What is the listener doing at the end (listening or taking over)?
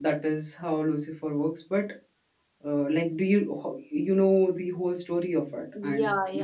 taking over